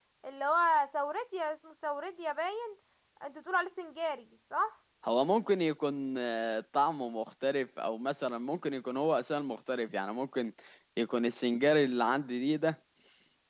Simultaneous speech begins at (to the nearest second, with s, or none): none